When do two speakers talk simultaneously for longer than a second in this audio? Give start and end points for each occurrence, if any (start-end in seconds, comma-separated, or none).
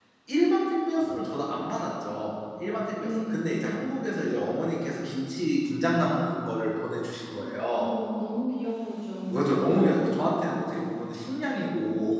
9.3-10.7